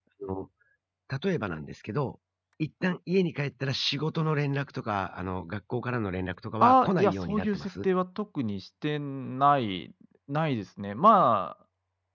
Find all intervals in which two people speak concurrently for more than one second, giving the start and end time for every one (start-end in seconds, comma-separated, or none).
6.6-7.9